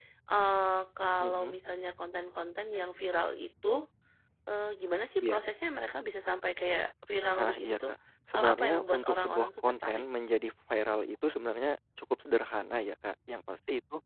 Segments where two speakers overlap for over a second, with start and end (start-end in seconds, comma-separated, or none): 8.3-10.0